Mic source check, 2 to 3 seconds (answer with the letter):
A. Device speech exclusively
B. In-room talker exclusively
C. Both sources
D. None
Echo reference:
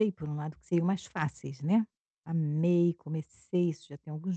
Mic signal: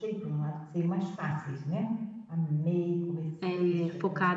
A